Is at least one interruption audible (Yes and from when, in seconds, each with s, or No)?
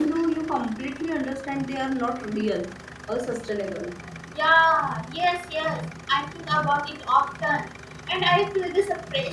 No